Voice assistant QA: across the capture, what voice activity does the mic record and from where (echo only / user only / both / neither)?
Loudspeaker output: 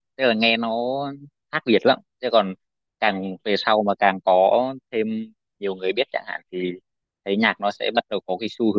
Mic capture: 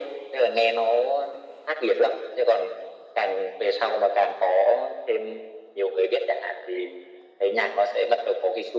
echo only